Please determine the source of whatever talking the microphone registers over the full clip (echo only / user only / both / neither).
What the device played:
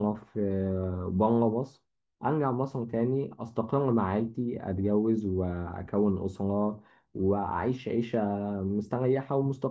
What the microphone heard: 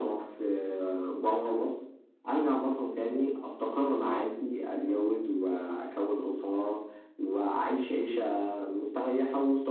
echo only